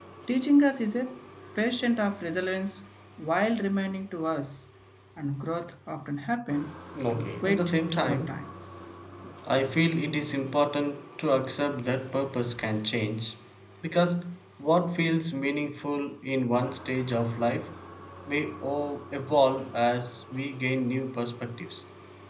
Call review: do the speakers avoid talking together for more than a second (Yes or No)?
No